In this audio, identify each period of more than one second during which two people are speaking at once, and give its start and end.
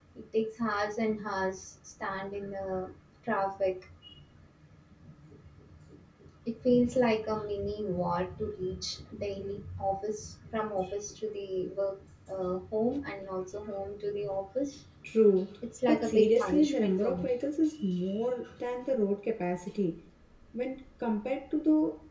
15.9-17.3

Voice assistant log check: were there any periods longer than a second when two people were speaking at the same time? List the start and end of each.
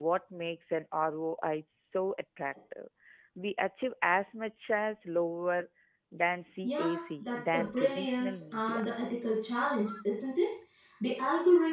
6.6-8.8

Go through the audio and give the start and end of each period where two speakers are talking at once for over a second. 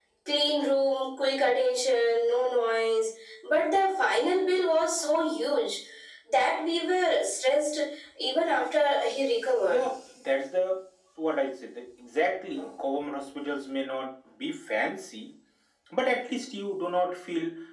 none

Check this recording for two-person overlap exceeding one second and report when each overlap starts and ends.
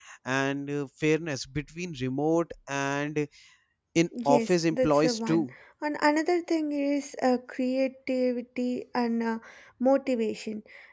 4.2-5.5

